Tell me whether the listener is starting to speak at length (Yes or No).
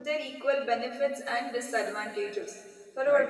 Yes